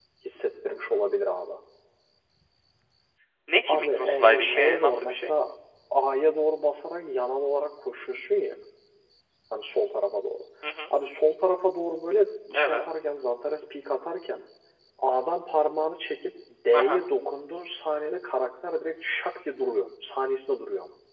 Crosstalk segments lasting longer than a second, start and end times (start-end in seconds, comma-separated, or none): 3.7-5.3